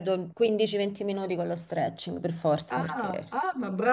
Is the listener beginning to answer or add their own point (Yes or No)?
Yes